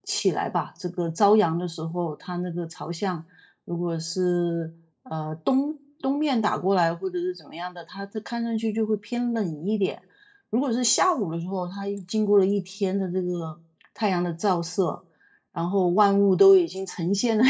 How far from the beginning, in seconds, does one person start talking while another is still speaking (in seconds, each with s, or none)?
none